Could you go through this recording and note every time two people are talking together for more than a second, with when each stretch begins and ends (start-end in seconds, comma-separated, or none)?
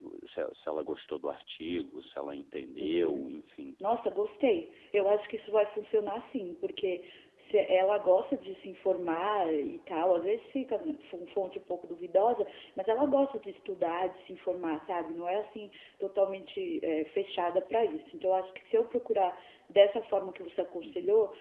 none